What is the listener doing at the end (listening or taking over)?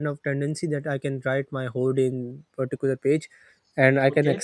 listening